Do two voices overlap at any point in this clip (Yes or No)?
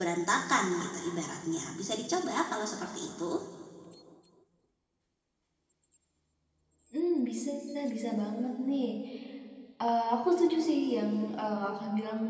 No